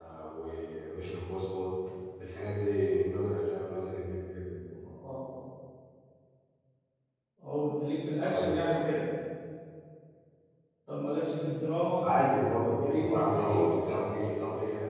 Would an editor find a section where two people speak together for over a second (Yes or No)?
Yes